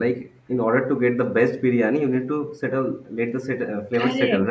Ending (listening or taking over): taking over